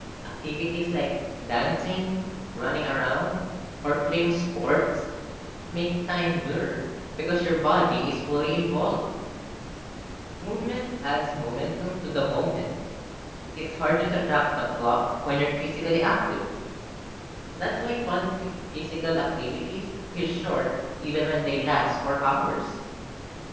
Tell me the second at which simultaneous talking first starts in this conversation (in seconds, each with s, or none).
none